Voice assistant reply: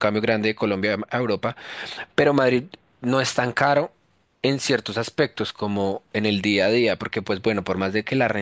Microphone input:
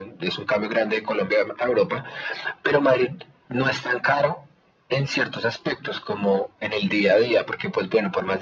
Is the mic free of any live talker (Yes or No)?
Yes